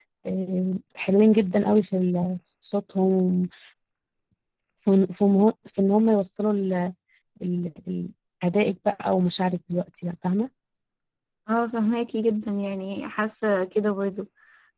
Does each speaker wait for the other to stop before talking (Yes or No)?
Yes